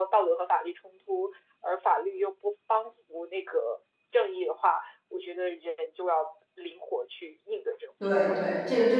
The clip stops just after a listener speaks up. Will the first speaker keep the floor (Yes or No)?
No